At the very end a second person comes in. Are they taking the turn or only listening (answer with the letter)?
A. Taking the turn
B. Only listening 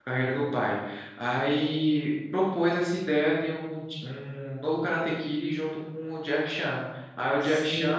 A